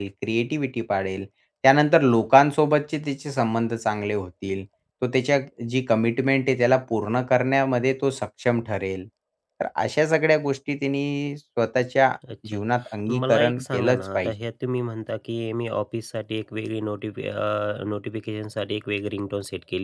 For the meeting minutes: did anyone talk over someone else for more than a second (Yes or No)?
Yes